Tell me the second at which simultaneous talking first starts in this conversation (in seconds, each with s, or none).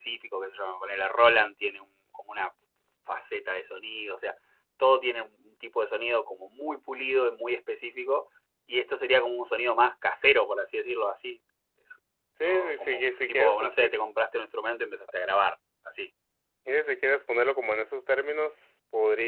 12.4 s